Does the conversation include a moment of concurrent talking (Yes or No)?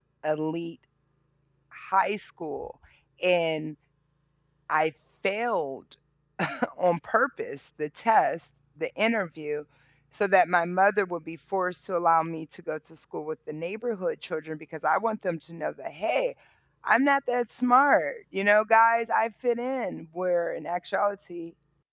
No